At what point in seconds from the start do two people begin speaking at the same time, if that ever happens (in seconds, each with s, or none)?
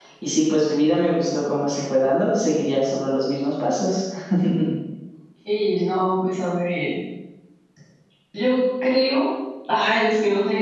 none